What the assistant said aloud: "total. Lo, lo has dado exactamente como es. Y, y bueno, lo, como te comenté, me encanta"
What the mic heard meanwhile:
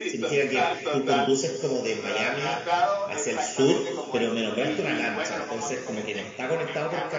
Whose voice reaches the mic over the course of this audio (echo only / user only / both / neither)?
both